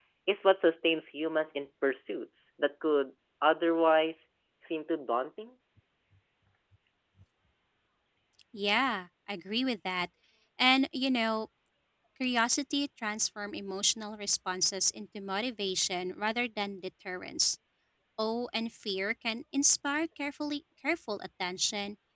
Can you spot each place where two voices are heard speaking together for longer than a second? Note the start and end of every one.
none

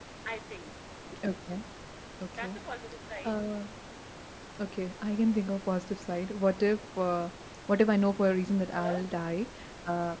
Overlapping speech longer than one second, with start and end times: none

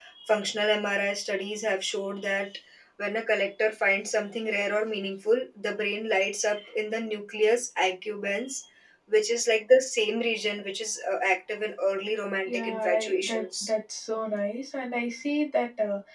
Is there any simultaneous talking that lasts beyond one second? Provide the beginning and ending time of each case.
12.5-13.7

